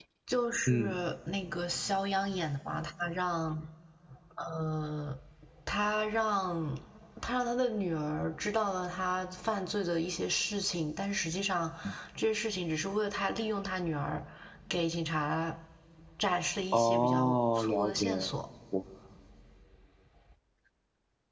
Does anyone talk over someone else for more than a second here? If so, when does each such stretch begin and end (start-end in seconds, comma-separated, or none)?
16.7-18.3